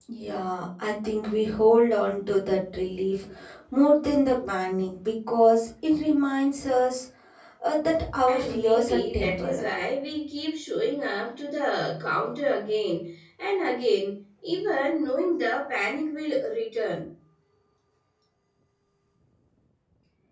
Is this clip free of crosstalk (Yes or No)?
No